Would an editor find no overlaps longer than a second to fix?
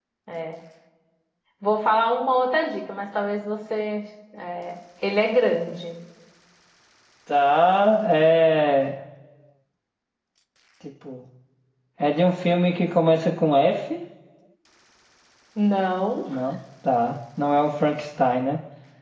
Yes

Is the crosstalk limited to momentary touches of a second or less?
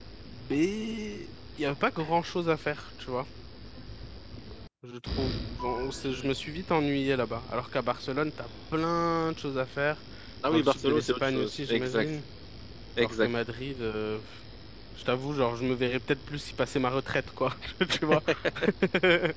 No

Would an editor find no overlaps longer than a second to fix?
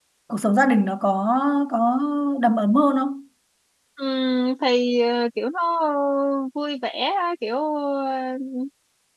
Yes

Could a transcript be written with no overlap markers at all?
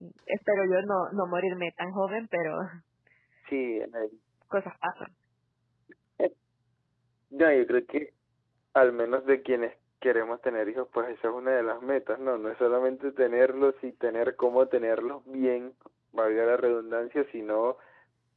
Yes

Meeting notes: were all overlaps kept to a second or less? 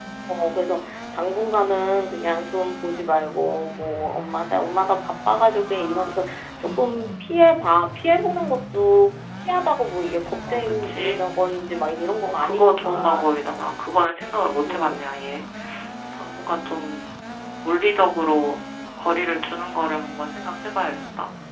No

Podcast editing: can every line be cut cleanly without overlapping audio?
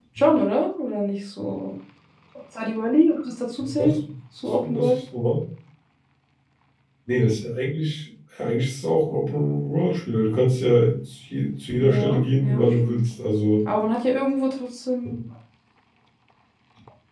No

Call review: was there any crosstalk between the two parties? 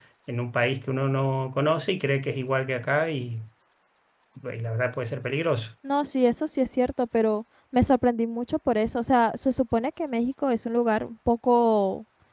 No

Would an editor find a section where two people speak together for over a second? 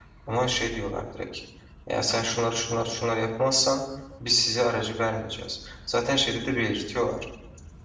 No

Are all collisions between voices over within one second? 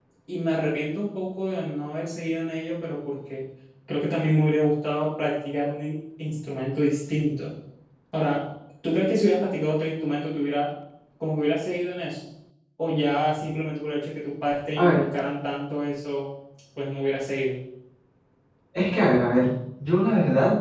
Yes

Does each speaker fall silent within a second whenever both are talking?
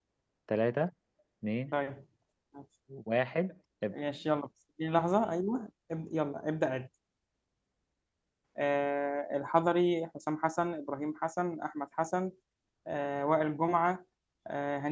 Yes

